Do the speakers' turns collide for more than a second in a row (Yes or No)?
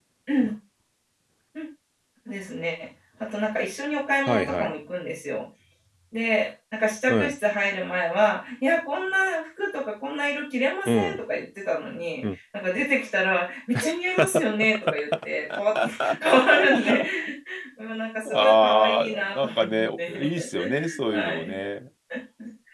Yes